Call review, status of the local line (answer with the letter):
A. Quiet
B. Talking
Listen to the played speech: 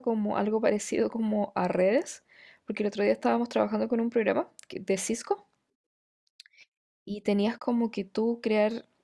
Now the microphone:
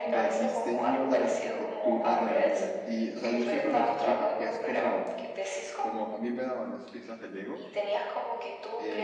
B